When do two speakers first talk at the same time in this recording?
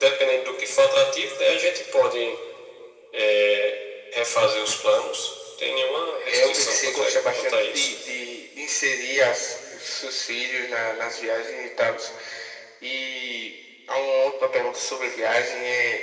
6.3 s

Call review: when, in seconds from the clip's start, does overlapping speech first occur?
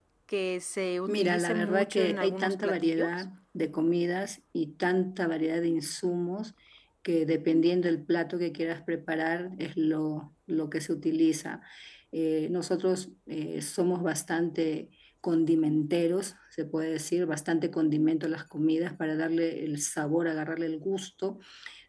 1.1 s

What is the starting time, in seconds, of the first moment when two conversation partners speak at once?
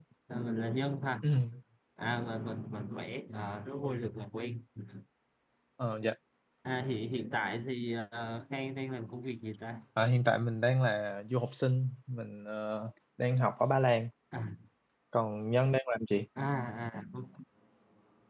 none

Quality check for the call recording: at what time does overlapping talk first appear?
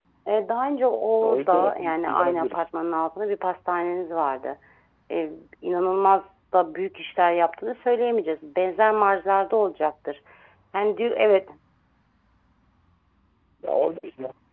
1.2 s

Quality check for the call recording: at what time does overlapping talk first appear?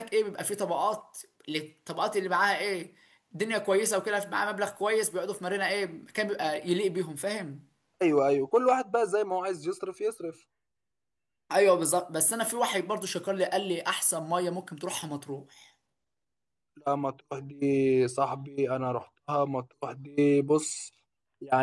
none

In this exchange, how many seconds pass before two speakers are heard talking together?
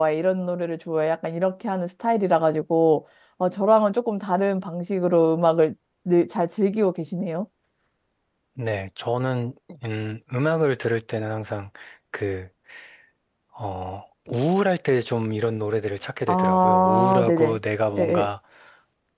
16.3 s

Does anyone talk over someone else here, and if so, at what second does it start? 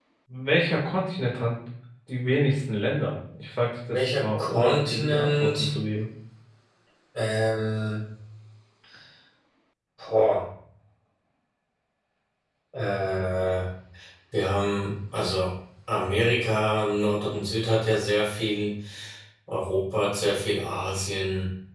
3.9 s

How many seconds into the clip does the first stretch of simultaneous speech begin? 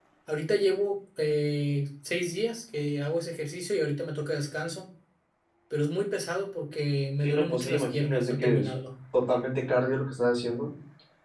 7.2 s

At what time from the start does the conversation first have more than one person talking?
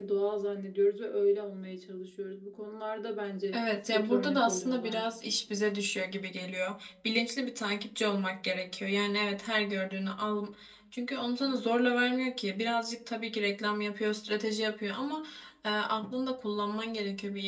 3.5 s

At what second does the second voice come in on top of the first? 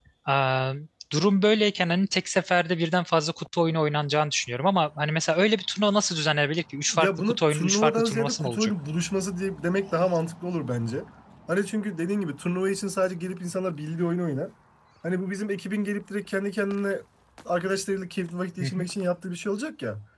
7.0 s

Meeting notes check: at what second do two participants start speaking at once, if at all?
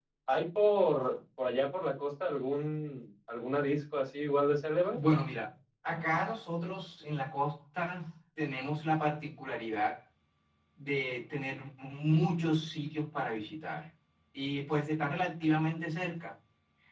none

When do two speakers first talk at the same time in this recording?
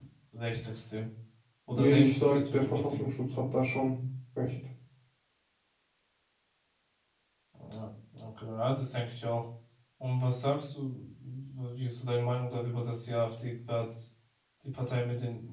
1.7 s

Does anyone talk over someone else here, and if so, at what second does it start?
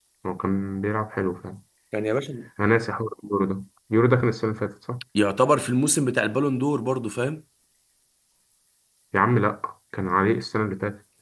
none

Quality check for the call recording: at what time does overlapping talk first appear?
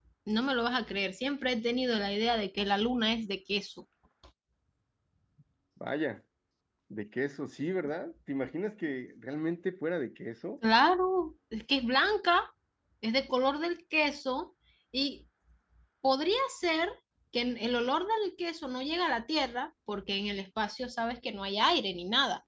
none

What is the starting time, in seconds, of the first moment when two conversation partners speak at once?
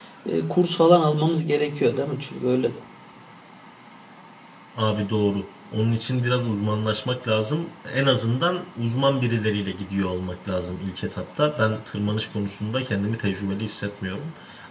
none

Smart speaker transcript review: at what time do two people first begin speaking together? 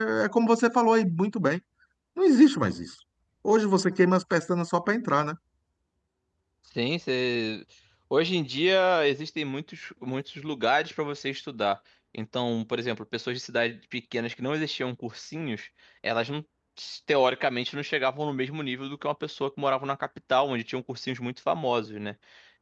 none

